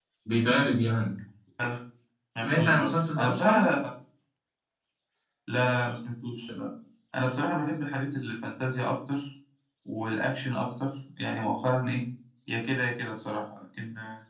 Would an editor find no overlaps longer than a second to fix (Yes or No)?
No